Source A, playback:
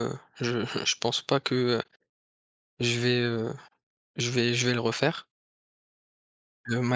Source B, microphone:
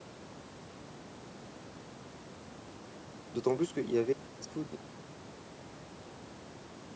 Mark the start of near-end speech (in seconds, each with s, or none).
3.3 s